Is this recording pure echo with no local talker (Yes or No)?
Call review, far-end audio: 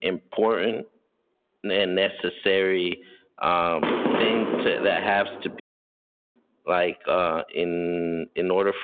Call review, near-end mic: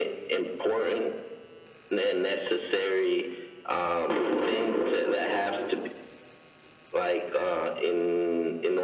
Yes